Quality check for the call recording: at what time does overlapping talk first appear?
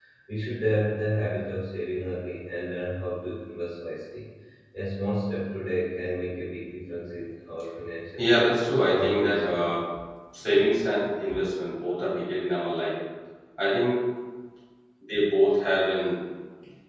8.2 s

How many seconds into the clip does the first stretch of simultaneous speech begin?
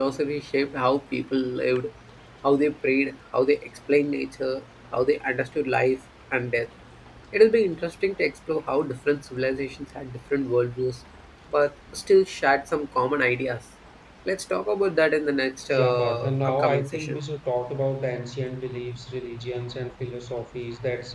15.7 s

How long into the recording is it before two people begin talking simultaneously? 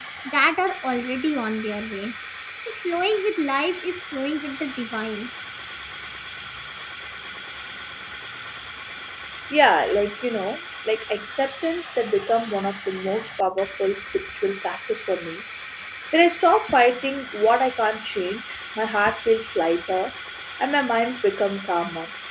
none

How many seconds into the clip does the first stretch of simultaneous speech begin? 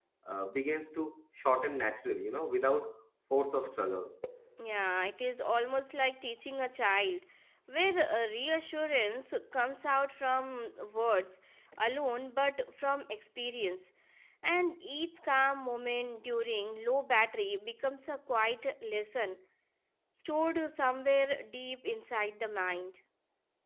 none

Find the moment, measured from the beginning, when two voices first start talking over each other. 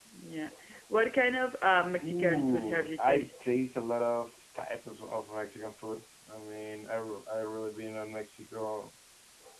2.0 s

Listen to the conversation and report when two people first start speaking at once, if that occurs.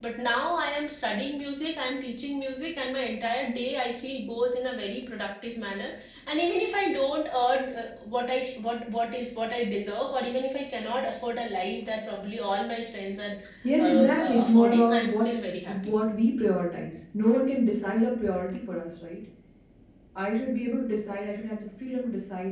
13.8 s

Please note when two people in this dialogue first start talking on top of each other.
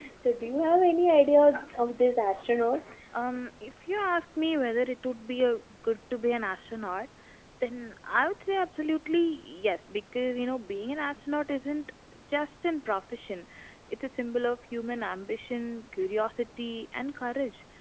none

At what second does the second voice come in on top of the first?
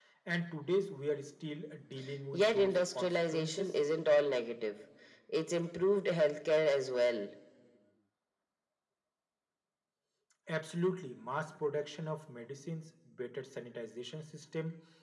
2.3 s

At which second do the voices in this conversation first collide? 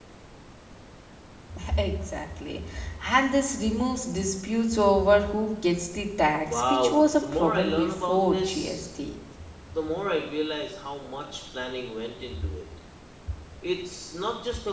6.4 s

